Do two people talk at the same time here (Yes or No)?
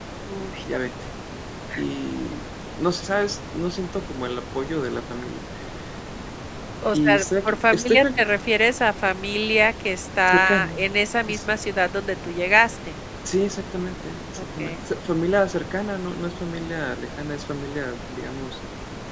Yes